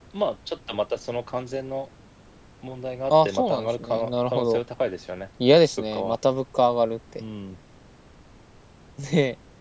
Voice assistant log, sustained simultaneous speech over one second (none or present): present